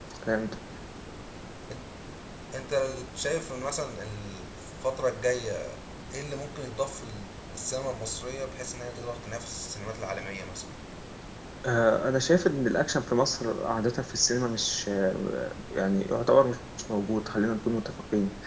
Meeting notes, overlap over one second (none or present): none